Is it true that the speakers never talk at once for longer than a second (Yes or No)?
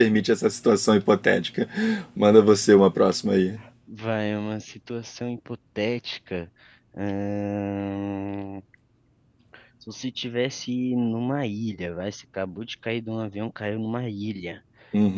Yes